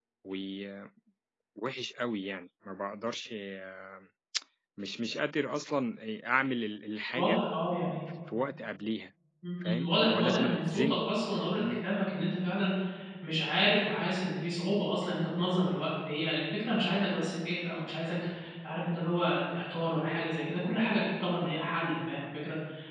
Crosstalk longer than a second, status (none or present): present